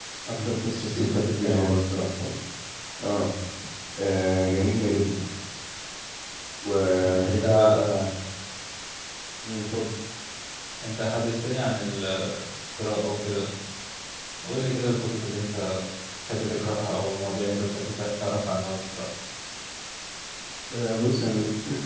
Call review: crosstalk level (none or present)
present